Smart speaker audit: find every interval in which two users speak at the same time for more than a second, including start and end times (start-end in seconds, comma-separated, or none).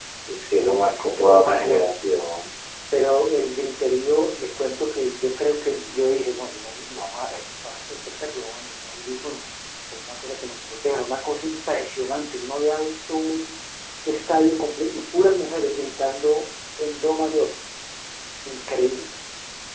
0.6-1.9